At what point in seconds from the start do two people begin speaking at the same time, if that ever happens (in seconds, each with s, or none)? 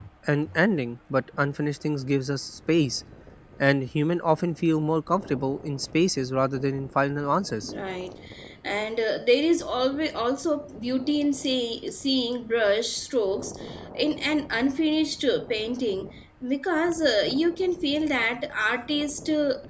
none